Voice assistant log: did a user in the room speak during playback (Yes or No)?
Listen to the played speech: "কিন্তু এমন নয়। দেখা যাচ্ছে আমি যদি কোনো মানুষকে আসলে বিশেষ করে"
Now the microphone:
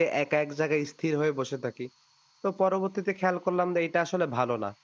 Yes